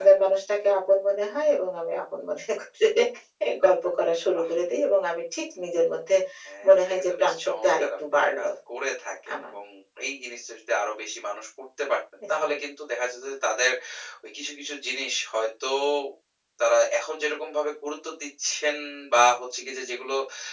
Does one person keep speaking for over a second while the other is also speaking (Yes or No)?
Yes